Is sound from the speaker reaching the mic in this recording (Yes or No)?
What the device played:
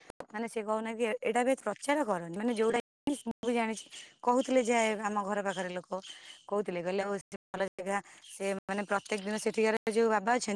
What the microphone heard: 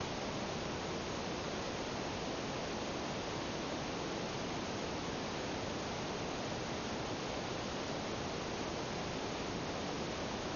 No